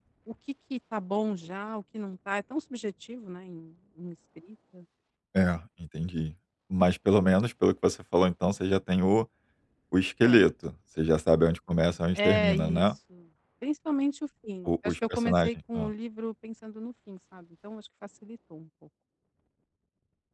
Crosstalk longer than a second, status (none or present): present